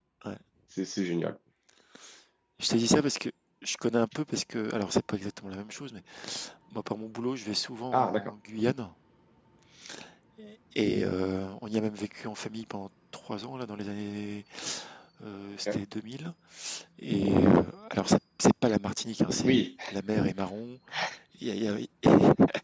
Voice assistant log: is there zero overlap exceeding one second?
Yes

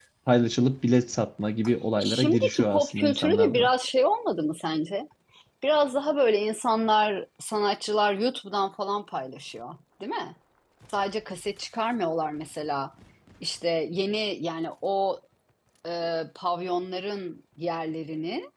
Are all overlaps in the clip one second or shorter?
No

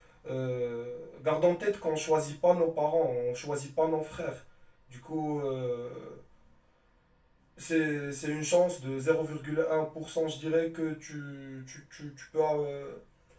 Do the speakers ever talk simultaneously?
No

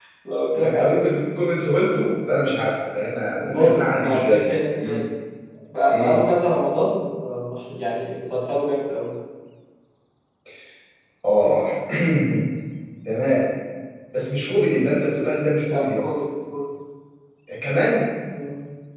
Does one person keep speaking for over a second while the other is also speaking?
Yes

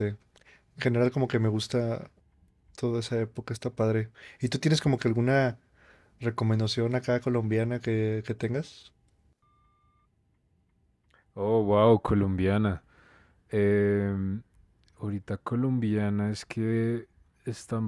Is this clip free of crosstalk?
Yes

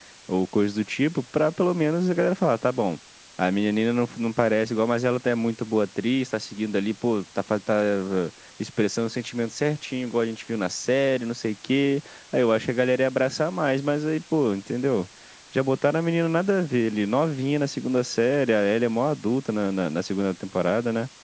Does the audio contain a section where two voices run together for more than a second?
No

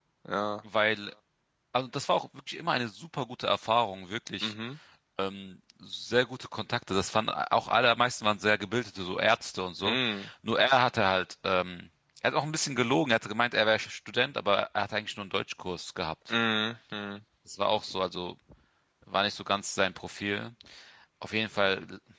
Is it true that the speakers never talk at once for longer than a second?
Yes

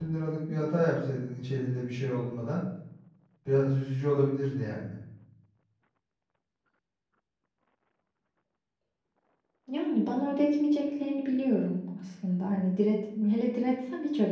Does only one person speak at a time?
Yes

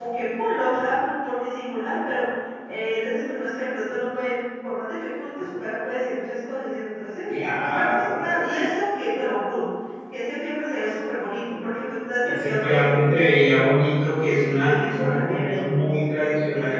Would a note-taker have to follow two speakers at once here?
Yes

